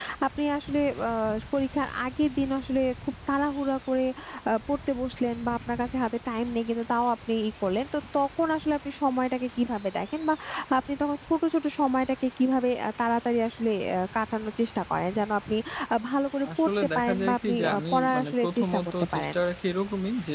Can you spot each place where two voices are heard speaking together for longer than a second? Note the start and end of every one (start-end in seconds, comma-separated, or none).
16.6-19.4